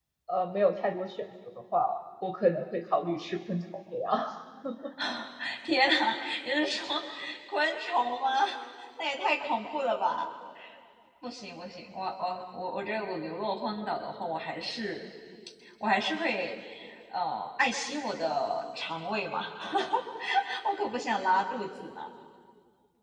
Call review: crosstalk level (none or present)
none